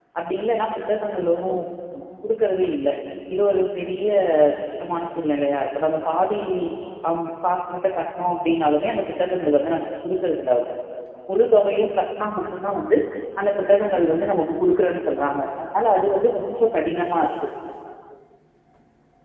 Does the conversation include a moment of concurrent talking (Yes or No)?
No